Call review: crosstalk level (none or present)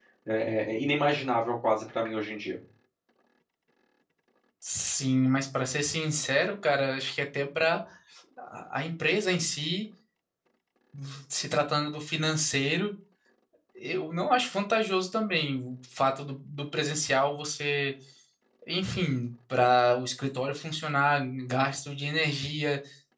none